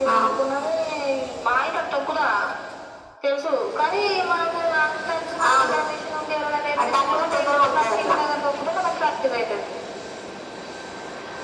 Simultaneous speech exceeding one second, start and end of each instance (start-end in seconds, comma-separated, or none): 6.8-8.1